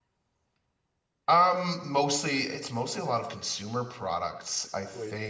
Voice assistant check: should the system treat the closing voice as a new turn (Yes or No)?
No